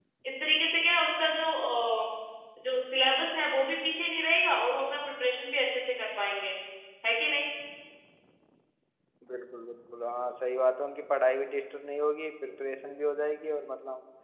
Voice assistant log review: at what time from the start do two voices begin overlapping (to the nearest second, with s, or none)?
none